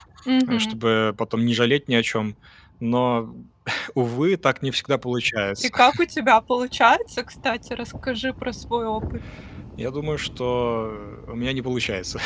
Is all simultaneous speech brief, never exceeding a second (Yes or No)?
Yes